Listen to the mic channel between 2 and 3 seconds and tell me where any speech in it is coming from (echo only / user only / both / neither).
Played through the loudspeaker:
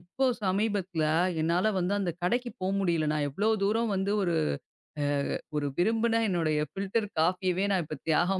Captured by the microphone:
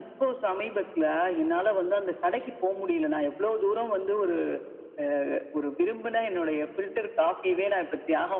echo only